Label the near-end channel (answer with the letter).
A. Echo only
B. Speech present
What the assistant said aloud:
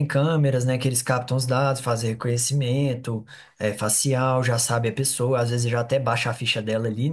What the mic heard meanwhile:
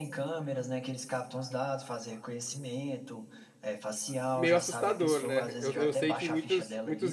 B